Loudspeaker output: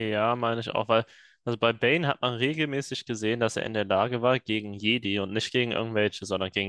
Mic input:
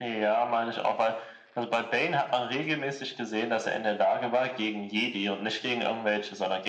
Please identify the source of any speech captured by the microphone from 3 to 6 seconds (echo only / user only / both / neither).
echo only